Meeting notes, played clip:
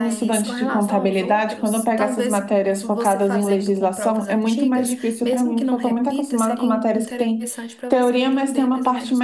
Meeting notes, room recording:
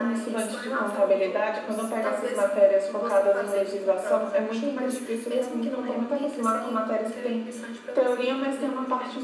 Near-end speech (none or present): none